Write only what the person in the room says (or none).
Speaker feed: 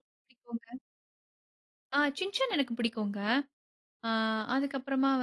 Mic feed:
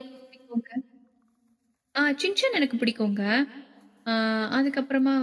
none